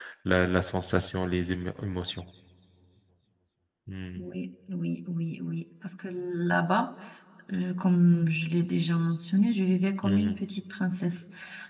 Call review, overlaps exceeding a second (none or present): none